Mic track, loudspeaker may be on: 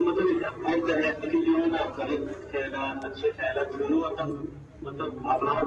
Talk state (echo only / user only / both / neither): both